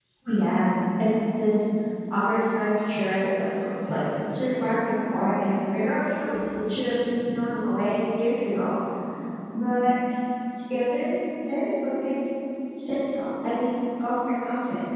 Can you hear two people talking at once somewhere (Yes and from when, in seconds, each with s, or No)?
No